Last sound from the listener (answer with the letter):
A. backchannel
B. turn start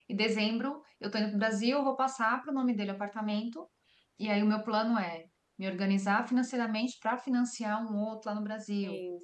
A